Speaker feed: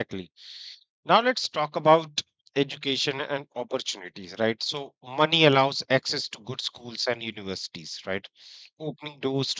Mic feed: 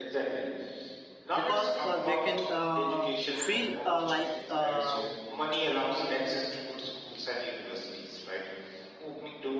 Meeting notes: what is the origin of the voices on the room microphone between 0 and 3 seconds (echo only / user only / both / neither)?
both